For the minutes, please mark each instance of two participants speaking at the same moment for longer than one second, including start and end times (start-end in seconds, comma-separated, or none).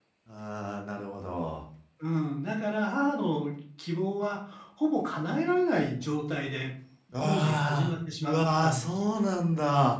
7.2-8.8